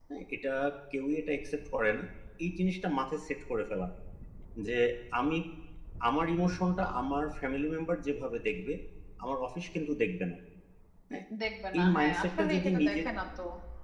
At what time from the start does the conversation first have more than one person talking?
11.8 s

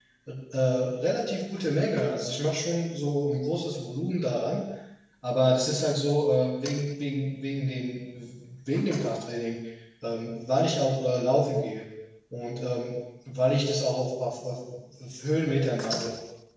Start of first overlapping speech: none

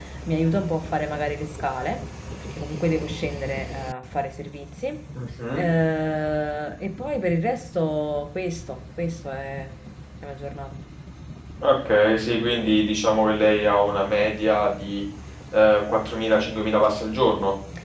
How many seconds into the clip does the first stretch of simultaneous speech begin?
none

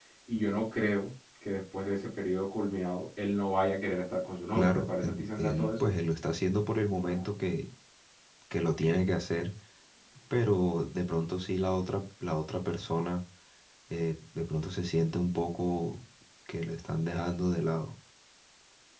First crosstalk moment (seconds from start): 4.5 s

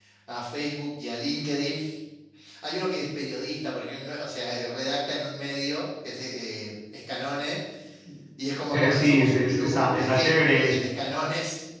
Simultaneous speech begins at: 8.9 s

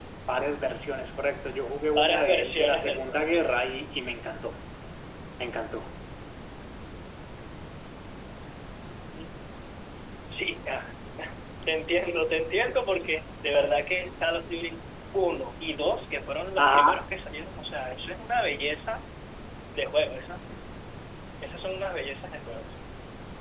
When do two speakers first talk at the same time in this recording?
2.0 s

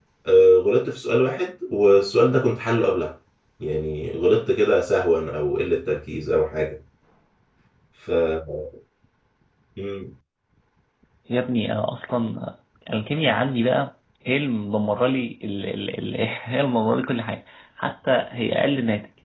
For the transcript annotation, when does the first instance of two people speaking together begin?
none

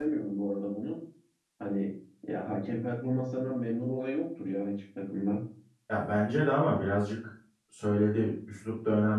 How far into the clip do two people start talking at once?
none

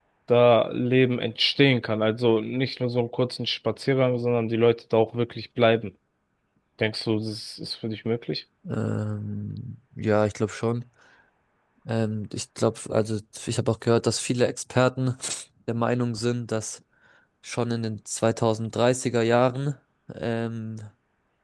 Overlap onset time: none

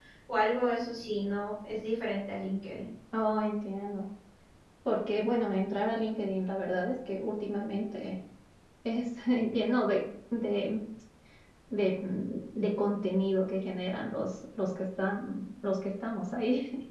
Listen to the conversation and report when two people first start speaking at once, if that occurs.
none

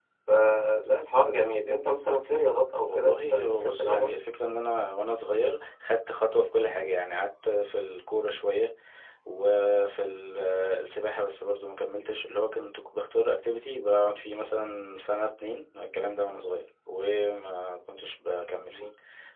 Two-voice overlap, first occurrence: 2.9 s

